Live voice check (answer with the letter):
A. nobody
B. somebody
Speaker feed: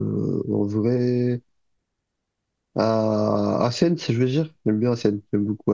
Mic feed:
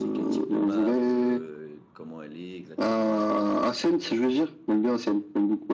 B